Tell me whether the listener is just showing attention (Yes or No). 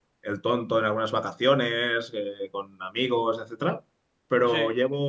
Yes